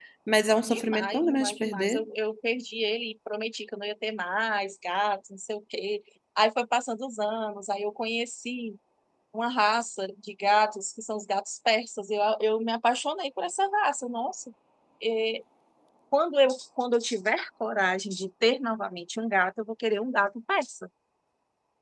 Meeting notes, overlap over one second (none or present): present